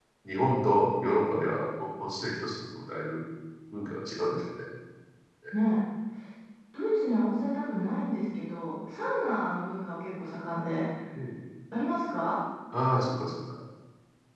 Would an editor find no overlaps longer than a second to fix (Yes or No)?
Yes